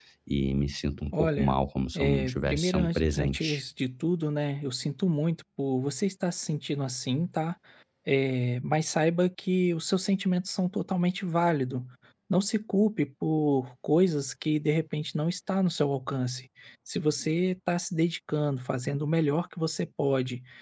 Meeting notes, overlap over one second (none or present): present